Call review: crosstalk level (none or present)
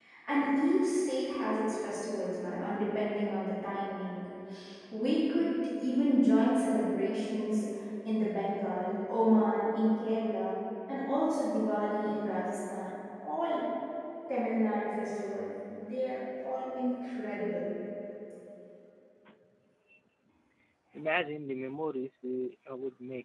none